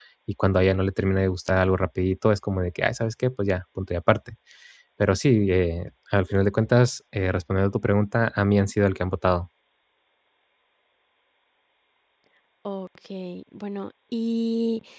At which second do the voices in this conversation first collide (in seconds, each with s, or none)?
none